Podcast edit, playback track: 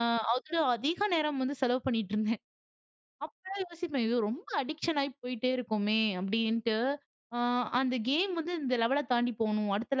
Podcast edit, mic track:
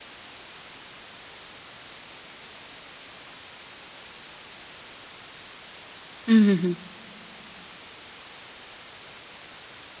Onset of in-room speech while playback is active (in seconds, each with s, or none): 6.3 s